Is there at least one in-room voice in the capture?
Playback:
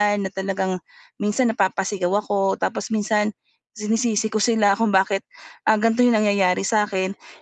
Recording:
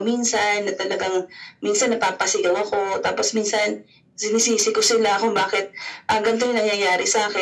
No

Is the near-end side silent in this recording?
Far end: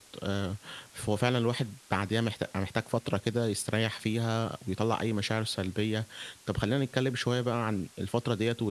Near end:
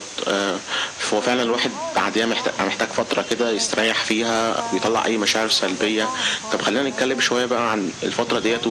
No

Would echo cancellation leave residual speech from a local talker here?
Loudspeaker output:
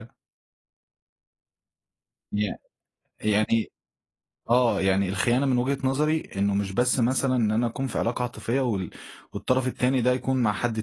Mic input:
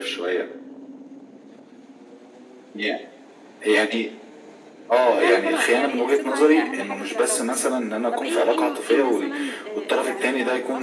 Yes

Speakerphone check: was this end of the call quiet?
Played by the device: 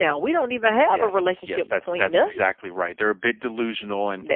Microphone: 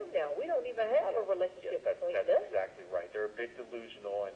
Yes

